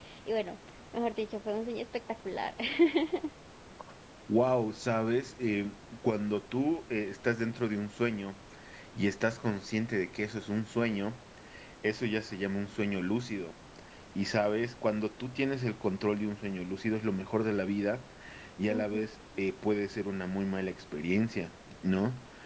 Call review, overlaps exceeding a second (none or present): none